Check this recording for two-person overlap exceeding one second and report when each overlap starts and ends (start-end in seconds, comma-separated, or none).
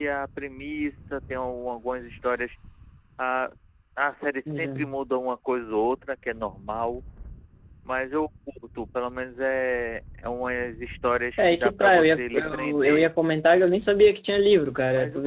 11.4-13.1